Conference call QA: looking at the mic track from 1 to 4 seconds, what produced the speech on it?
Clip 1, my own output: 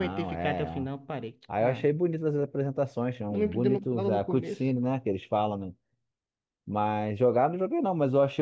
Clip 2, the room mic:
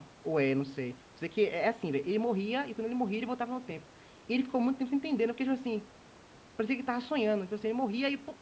user only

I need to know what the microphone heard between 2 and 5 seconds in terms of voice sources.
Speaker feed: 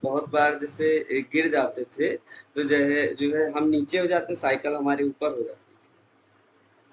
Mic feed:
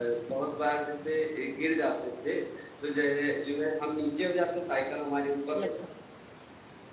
echo only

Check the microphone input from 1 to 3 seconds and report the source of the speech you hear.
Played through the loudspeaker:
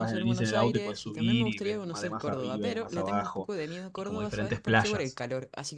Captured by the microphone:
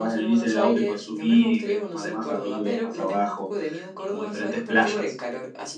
echo only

